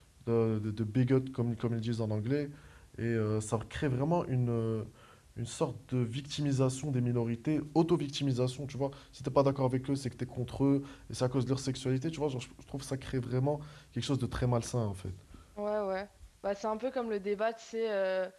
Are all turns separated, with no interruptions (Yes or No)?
Yes